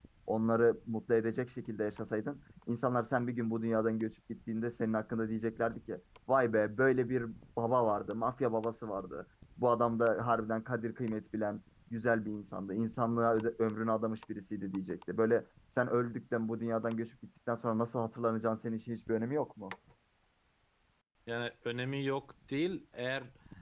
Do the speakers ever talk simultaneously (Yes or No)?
No